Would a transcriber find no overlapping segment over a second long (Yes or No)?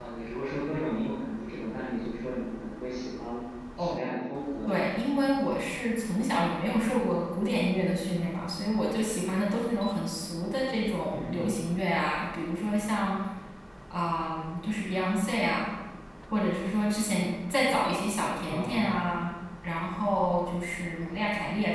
Yes